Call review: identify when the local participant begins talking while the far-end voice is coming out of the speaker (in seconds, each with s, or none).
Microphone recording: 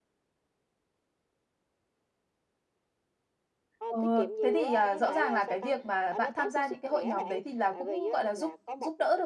3.9 s